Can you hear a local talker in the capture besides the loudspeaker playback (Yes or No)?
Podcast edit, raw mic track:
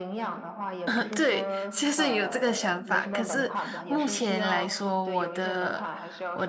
Yes